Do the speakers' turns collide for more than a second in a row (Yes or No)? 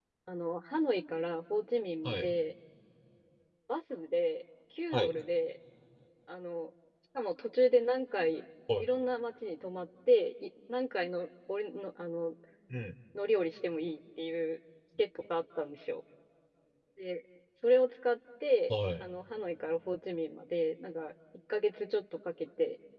No